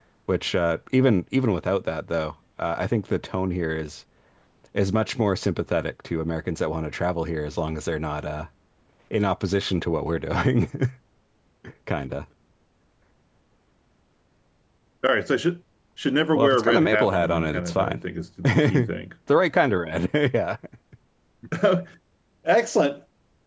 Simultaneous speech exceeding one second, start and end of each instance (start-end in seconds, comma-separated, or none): 16.3-18.0